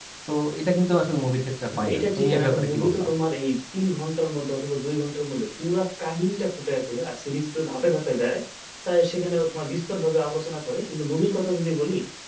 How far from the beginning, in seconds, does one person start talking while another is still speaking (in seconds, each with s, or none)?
1.7 s